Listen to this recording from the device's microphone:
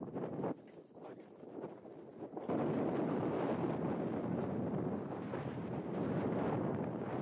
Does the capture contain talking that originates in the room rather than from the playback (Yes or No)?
No